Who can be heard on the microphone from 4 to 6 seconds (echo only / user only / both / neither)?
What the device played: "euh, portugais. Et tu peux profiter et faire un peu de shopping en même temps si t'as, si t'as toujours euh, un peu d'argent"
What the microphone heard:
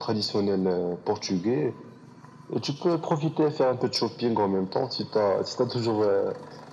echo only